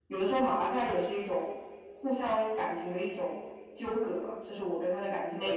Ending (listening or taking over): listening